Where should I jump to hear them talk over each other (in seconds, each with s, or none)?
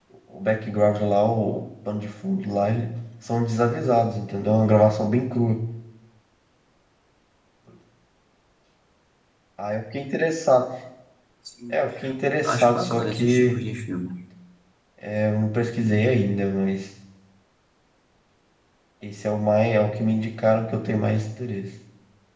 12.4 s